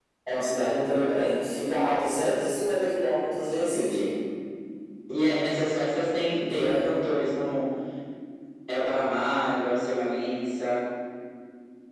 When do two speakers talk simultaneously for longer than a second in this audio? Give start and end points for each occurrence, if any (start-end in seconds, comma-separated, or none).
none